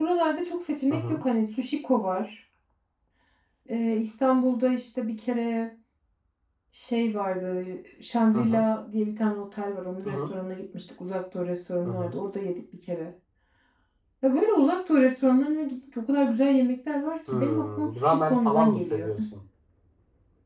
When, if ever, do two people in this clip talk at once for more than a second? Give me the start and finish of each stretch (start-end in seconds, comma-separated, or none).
17.3-19.1